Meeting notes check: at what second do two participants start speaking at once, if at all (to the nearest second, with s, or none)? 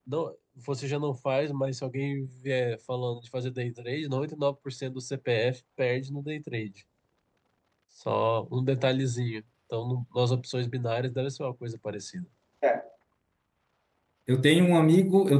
none